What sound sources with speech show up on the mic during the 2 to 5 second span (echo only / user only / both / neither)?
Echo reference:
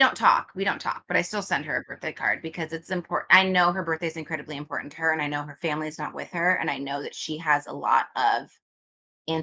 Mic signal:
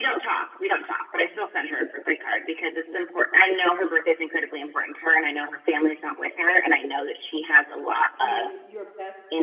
echo only